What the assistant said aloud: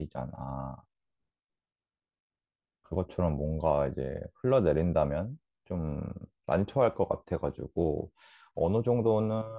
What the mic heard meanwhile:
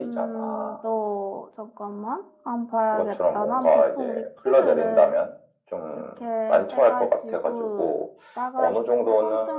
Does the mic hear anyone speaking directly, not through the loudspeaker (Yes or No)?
Yes